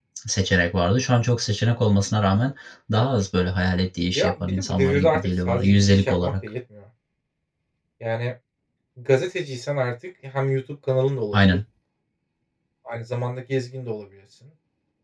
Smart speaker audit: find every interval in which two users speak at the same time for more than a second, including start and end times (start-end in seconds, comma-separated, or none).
4.2-6.3